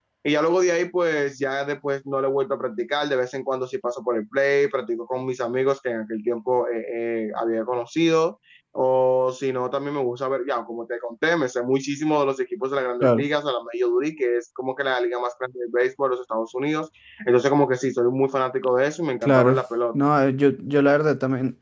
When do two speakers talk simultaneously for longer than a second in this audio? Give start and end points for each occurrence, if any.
none

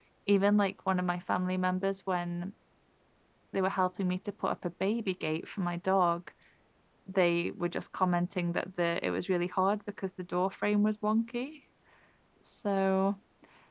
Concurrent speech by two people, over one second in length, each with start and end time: none

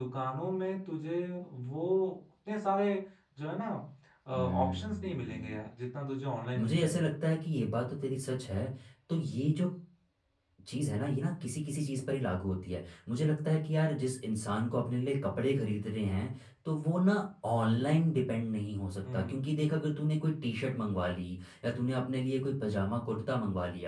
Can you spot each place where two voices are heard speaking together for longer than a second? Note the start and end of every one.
4.3-5.6

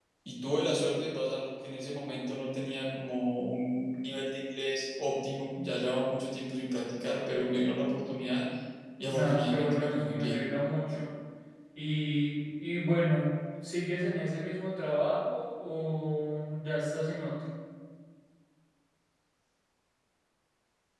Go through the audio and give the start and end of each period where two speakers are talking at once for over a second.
9.1-10.4

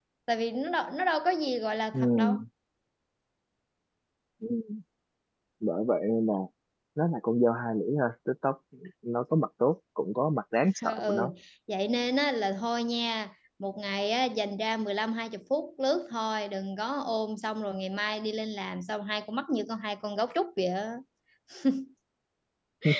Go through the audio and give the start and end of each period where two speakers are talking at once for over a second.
none

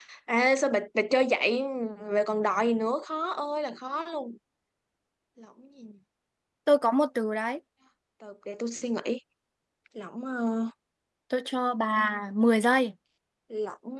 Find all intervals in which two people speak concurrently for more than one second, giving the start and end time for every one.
none

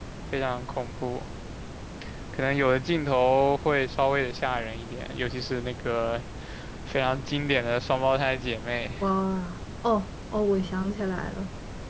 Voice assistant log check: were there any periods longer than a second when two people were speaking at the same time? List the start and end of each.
none

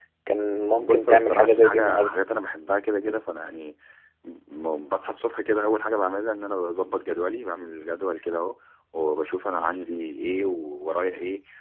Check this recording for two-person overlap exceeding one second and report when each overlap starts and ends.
0.8-2.2

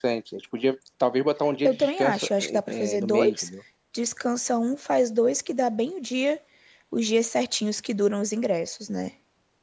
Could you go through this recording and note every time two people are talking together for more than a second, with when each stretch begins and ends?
1.6-3.5

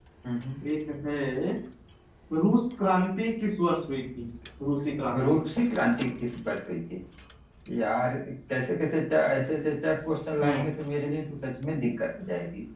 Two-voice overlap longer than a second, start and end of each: none

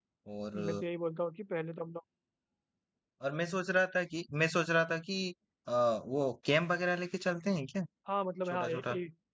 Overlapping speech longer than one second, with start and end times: none

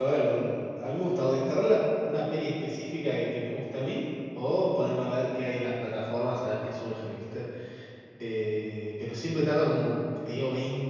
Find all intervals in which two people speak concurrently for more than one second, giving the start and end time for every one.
none

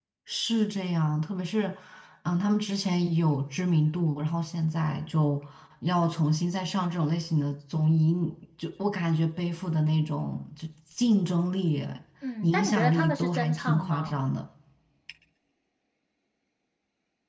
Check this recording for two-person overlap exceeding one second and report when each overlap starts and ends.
12.4-14.2

